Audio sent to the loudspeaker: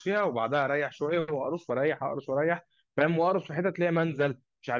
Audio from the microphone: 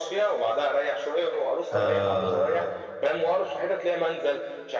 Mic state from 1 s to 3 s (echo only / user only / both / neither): both